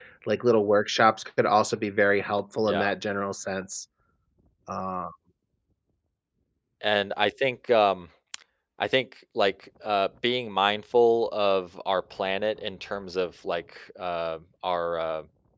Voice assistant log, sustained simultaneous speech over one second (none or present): none